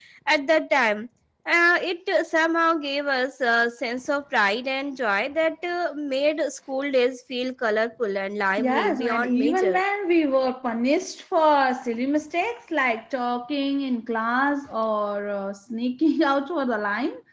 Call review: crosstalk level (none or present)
present